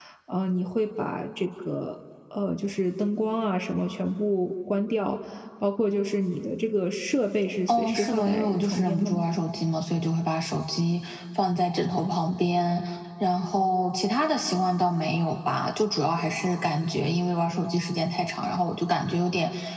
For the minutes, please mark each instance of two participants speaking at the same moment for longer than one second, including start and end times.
7.7-9.3

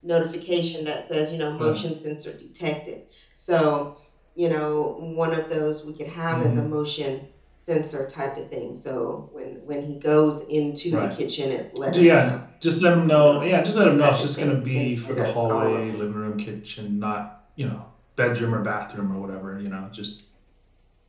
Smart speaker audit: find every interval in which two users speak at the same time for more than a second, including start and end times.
14.0-16.0

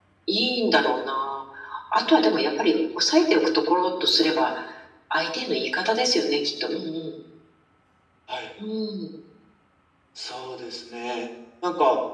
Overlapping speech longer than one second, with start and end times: none

